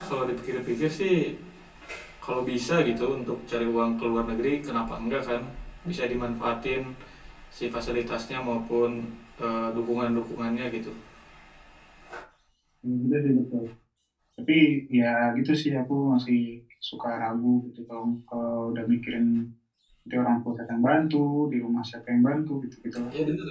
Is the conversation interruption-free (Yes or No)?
Yes